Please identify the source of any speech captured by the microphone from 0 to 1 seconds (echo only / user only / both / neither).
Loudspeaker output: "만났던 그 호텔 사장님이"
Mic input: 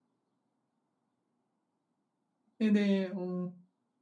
neither